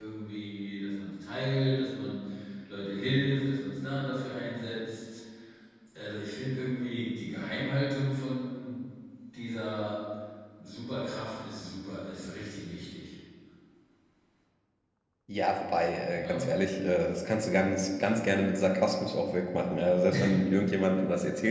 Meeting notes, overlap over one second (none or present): none